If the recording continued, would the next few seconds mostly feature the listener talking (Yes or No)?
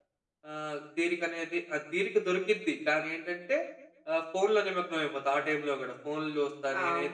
Yes